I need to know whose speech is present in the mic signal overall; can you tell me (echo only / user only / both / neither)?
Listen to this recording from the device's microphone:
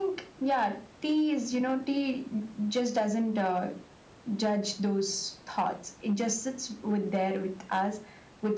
echo only